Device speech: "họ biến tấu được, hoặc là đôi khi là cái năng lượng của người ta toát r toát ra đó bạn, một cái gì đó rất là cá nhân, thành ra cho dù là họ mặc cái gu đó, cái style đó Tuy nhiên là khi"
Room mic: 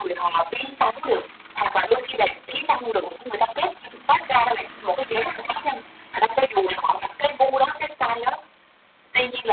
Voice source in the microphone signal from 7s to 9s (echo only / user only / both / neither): echo only